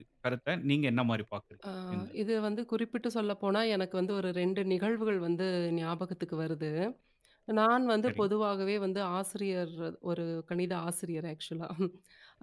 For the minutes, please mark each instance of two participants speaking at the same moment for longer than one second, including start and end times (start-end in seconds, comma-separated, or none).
none